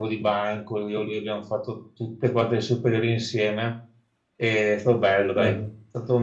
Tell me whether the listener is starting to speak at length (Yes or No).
No